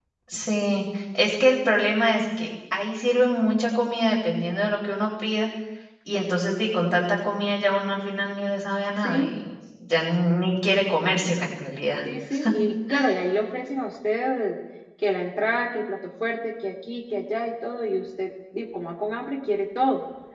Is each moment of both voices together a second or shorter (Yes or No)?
Yes